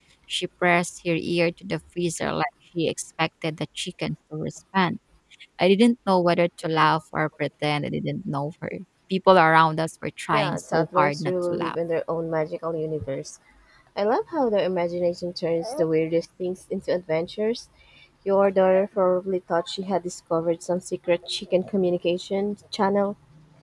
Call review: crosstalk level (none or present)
present